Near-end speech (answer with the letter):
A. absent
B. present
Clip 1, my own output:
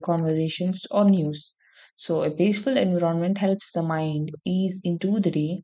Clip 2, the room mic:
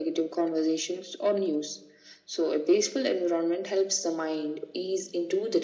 A